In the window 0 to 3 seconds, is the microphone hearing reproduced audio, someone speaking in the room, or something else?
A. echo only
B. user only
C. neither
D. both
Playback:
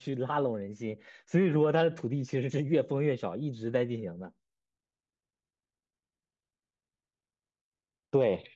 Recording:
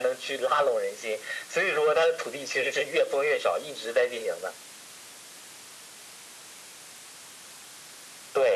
A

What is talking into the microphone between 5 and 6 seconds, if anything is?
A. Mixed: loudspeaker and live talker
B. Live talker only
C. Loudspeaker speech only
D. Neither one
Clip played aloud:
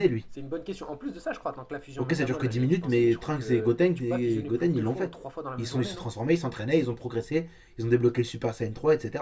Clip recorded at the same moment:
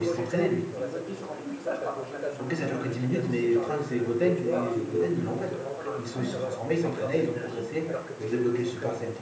A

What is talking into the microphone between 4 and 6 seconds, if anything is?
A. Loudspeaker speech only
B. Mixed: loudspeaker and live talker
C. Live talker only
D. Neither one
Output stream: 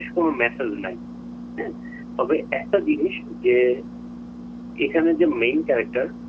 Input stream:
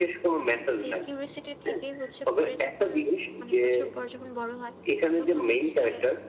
B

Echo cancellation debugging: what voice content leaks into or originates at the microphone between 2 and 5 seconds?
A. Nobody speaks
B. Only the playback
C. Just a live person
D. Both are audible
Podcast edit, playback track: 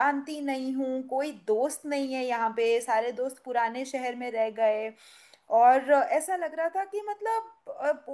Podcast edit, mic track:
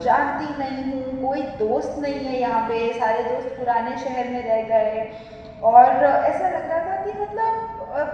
B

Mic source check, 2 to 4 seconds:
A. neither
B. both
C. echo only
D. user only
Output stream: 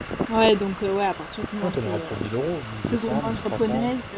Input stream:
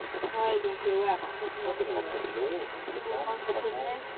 C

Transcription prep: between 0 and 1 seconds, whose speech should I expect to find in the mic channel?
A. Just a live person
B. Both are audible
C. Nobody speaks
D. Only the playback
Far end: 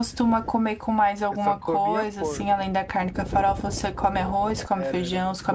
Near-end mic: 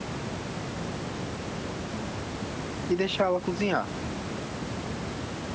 C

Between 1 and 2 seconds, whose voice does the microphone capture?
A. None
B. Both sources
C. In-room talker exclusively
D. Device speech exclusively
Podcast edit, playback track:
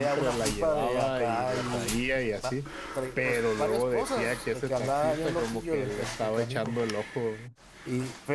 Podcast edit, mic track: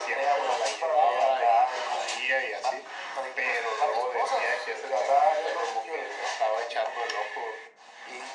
D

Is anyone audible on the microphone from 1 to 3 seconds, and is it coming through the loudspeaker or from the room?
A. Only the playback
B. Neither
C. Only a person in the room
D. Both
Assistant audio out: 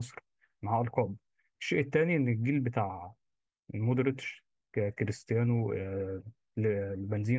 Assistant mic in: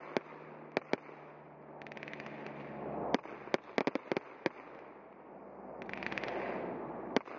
B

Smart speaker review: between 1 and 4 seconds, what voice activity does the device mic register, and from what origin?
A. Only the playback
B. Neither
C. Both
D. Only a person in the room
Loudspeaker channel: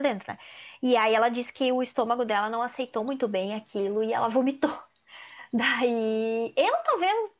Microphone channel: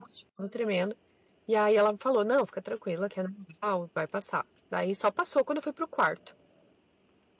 D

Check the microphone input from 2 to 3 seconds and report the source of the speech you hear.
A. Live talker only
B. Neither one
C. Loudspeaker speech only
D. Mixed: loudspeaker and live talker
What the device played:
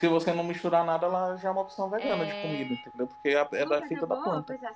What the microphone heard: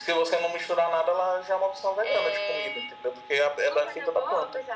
C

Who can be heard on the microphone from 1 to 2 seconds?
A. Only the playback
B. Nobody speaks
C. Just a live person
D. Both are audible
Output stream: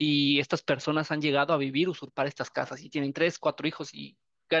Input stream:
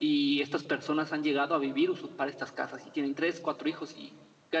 A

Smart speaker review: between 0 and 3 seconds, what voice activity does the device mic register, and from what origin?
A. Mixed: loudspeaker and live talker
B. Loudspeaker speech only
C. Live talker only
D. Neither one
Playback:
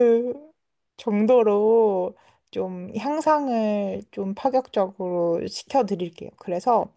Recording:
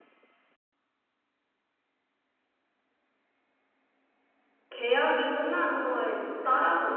D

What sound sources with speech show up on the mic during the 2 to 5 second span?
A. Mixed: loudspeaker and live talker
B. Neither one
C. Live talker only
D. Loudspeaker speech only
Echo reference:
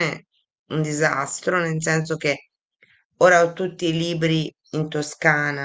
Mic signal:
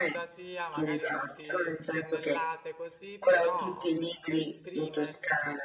A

